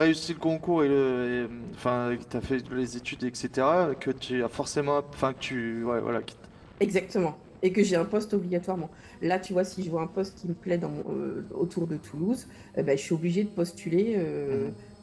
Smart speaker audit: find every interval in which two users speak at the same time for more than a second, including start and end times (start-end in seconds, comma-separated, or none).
none